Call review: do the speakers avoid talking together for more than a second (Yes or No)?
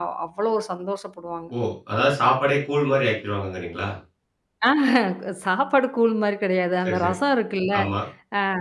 Yes